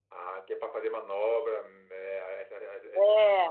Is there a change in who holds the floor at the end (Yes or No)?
Yes